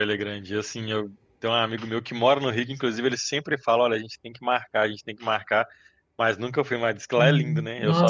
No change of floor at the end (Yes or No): No